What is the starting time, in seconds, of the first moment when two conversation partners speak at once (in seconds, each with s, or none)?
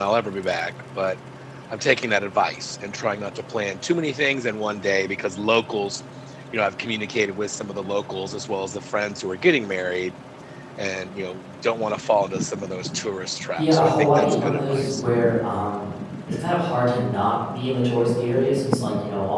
13.6 s